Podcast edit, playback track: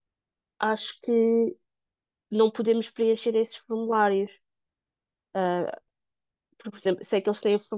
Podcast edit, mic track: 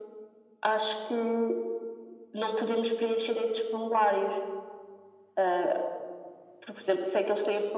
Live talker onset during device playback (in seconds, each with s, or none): none